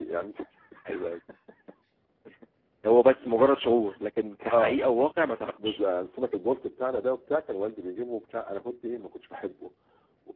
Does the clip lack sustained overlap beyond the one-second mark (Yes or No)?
Yes